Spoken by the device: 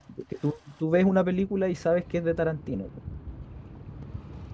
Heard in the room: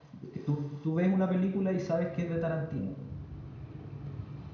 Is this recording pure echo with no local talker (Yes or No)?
Yes